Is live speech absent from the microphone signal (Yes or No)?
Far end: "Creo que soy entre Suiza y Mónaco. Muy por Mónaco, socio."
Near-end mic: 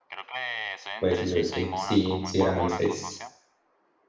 No